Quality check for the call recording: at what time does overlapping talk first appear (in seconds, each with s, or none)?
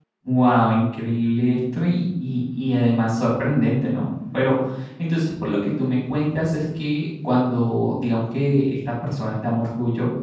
none